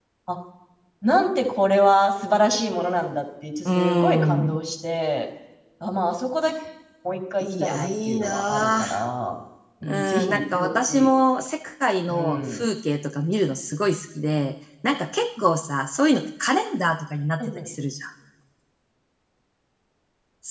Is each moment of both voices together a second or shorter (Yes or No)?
No